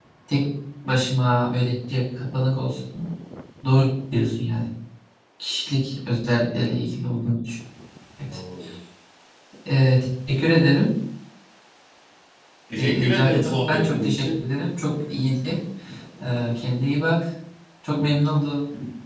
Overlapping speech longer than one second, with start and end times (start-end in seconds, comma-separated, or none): 12.8-14.4